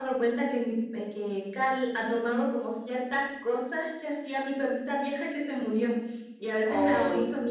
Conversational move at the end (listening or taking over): listening